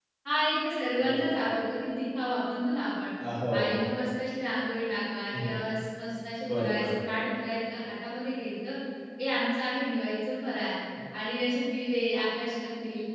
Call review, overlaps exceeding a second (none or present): none